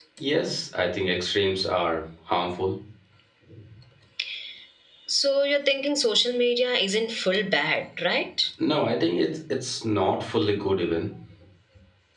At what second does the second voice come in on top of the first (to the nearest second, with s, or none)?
none